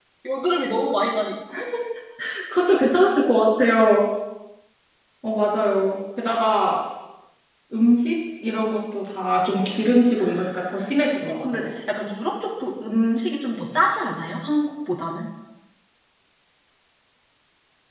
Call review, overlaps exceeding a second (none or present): present